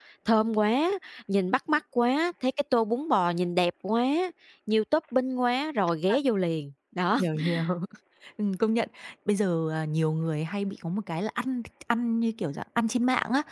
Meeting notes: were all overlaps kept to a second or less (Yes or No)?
Yes